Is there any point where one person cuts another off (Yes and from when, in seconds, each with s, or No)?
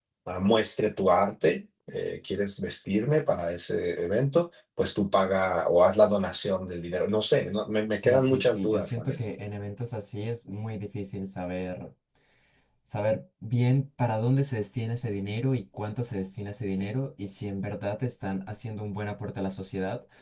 Yes, from 7.9 s